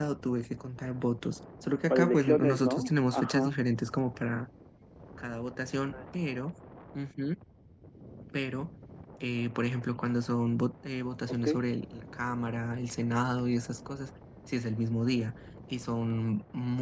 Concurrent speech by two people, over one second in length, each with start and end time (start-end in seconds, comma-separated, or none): 1.9-3.6